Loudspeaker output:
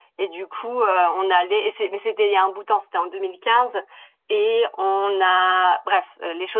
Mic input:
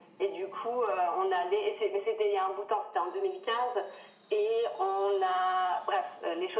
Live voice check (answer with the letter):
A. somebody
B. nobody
B